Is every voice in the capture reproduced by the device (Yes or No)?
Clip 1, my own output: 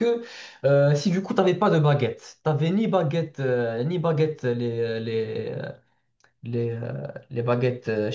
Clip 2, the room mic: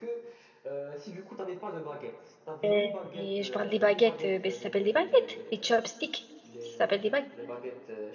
No